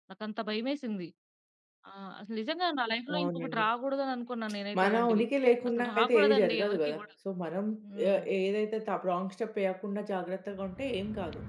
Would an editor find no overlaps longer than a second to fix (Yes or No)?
No